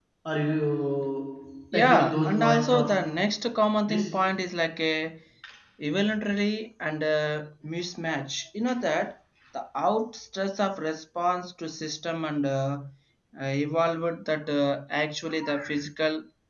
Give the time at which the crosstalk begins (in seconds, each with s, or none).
1.7 s